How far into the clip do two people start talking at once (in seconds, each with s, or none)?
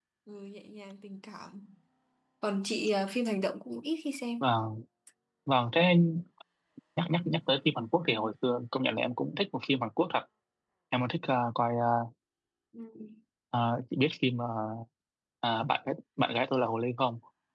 none